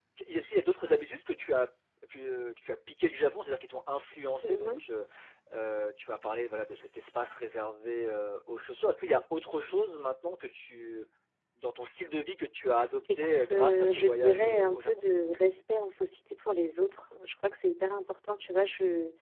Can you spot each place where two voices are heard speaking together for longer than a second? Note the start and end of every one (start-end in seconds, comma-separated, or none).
13.2-15.0